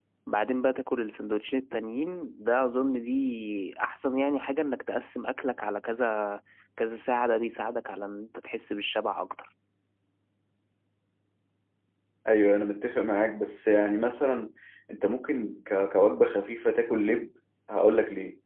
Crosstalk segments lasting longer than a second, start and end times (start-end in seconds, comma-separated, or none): none